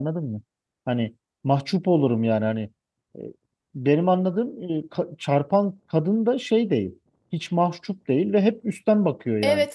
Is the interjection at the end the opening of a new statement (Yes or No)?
No